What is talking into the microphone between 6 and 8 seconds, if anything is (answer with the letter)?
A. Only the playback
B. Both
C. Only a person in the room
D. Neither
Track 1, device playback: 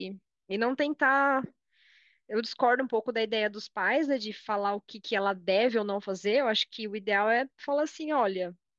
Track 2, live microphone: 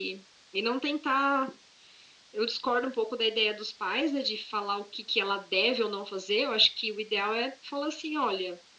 A